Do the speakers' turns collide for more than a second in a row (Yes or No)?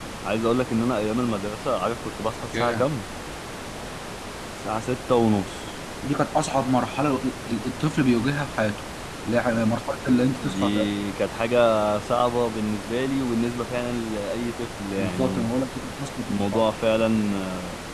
No